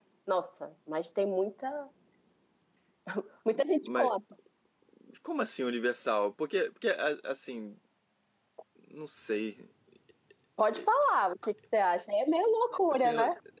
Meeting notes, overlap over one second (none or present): none